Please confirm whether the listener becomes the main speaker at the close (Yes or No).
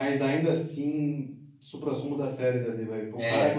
No